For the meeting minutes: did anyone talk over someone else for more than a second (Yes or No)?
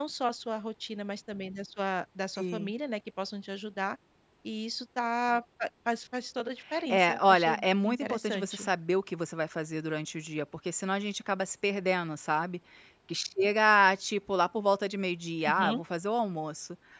Yes